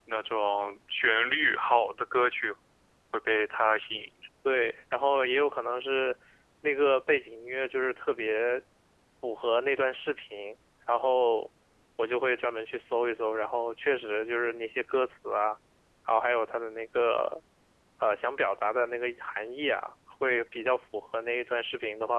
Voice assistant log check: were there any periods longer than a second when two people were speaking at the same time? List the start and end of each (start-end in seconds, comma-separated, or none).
none